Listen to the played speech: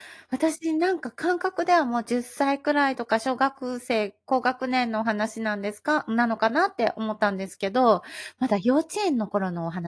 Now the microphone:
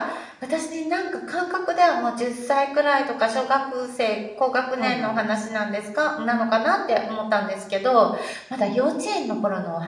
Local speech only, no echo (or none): そうなんです。